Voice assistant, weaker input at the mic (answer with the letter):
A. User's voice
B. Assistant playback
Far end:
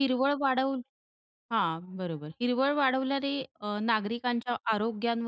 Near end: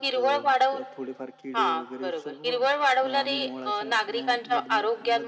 A